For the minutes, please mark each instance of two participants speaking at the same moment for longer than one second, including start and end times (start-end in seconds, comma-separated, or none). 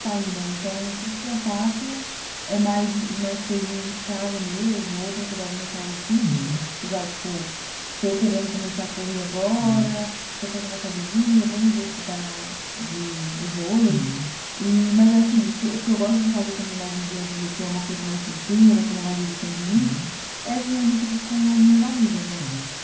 none